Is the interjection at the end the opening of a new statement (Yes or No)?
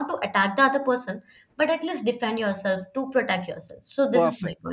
Yes